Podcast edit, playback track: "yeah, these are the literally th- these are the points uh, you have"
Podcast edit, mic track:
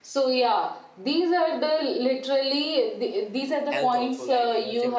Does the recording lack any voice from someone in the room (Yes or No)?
No